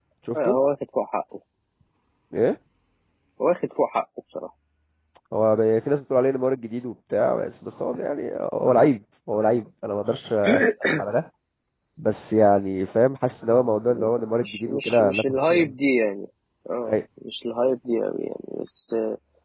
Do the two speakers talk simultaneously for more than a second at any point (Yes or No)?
Yes